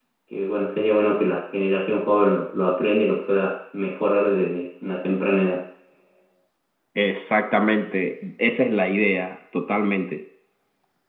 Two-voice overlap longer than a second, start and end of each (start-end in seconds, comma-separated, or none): none